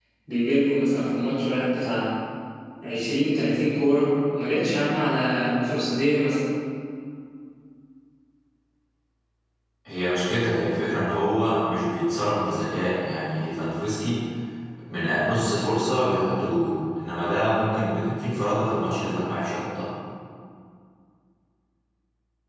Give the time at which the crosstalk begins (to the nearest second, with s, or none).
none